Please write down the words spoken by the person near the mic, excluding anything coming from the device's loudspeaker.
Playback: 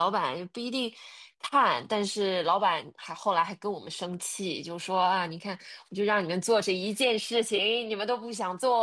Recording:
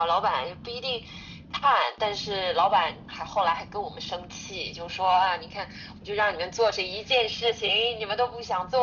none

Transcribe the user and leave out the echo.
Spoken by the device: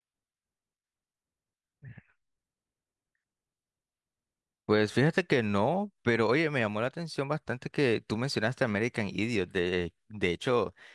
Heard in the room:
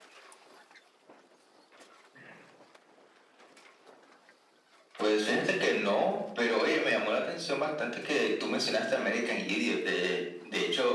none

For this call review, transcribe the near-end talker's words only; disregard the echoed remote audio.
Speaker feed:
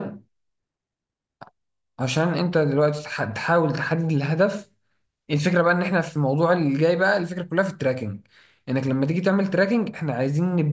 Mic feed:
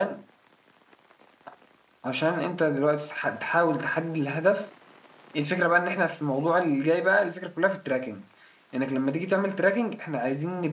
none

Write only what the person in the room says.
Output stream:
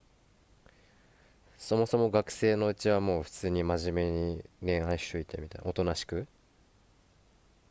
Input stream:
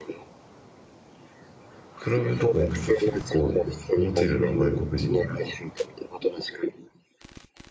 クラブとか行くと結構モテるな、外国人に。

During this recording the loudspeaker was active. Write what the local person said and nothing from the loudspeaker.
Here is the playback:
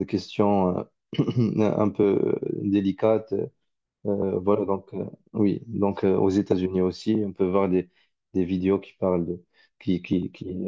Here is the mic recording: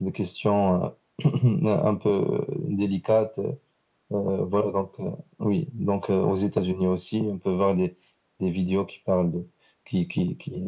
none

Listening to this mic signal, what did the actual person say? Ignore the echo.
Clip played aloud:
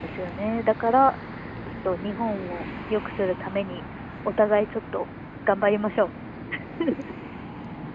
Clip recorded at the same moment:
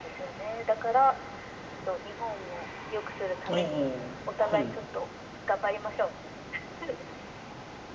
ええはい。

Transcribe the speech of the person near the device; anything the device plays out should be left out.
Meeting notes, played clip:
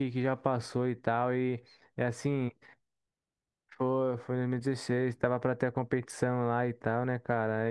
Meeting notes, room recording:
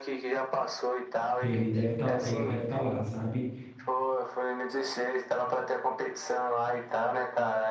Ele deve estar, ele deve estar lá, sabe?

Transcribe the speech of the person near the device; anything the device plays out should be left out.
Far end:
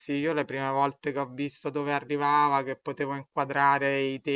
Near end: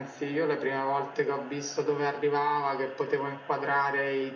none

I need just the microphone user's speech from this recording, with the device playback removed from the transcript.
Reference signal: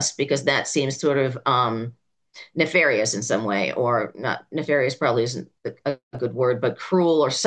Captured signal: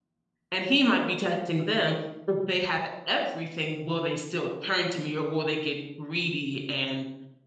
And he might be testing them if they have everything, will they still turn to me or will they get greedy and

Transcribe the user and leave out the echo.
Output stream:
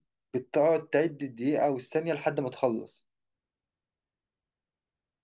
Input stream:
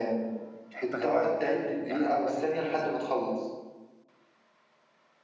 في حته غير بلدك فاهم يعني انا دلوقتي هديك فيزا

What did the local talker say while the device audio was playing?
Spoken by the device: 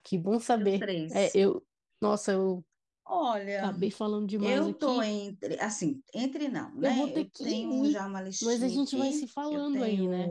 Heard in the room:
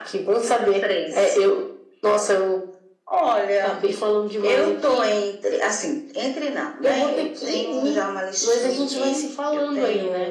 none

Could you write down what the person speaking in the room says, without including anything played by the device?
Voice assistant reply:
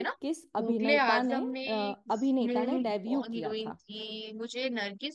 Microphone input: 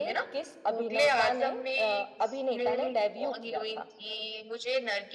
none

